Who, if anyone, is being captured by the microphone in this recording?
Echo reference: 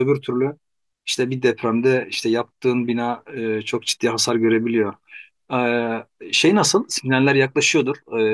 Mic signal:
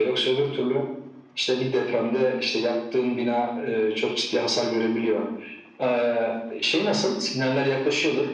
echo only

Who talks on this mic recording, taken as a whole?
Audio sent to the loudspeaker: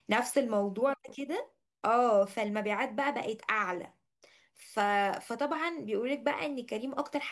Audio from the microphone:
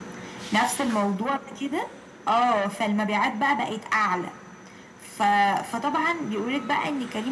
echo only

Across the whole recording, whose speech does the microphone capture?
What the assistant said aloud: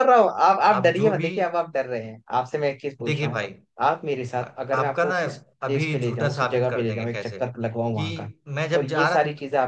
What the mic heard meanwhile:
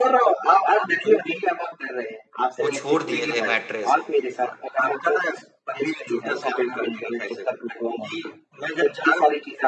both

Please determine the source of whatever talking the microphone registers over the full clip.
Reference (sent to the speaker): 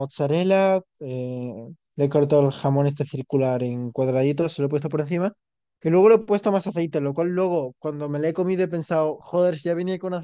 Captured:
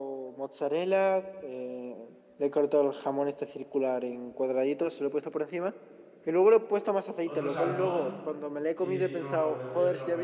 both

